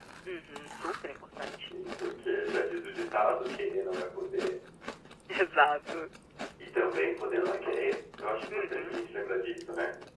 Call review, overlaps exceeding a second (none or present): none